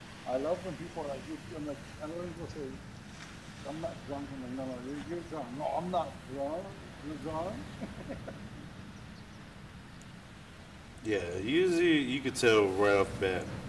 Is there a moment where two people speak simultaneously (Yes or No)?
No